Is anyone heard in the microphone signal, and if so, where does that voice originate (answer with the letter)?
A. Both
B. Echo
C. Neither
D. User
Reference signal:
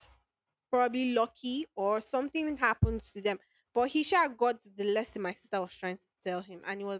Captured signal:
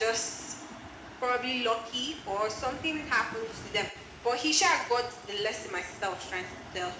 B